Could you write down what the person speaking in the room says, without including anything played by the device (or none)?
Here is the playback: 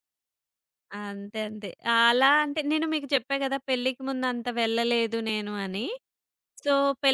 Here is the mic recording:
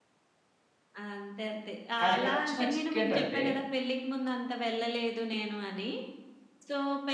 కానీ ఇక్కడొచ్చిన చిక్కేంటంటే